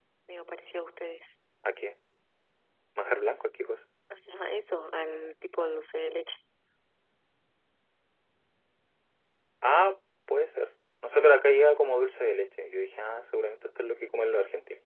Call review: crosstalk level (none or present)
none